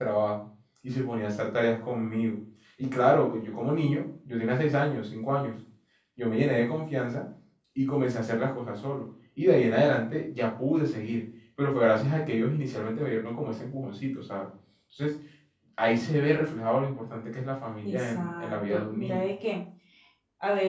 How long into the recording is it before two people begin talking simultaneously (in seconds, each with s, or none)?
17.8 s